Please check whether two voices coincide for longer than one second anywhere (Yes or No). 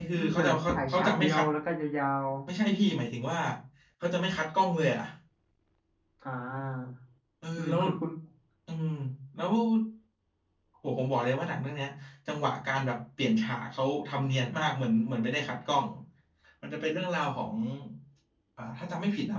Yes